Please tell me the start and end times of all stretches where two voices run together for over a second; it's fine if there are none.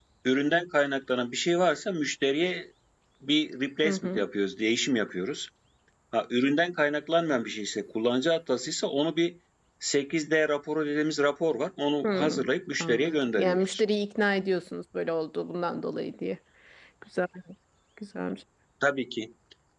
12.0-13.8

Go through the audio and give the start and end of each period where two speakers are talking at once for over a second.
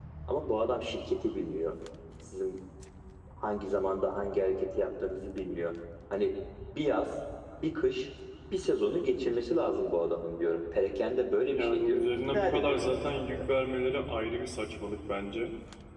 11.5-13.4

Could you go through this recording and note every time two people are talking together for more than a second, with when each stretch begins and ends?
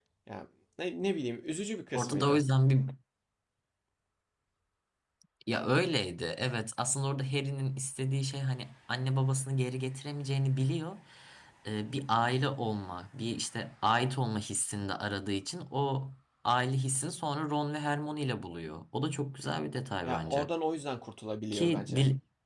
none

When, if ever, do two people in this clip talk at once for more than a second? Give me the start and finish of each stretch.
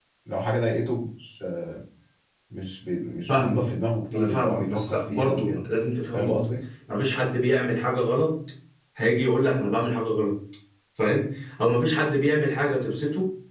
4.1-5.6

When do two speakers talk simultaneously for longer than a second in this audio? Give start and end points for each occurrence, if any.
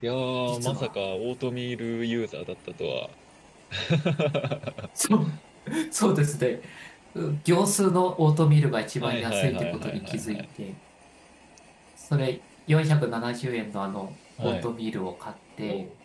9.0-10.4

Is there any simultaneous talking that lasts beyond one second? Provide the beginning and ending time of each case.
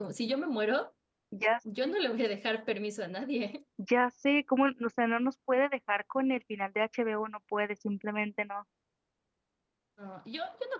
none

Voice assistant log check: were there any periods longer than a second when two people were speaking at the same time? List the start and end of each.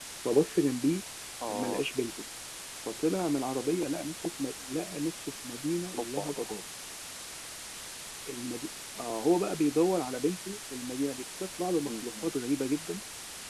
none

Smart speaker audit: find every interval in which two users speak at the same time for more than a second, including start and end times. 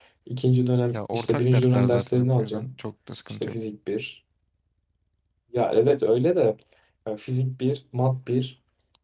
0.9-2.7

